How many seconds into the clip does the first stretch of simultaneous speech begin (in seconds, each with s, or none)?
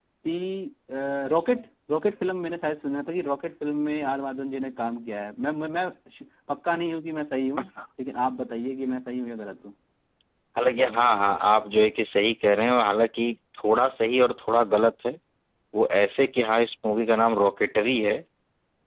none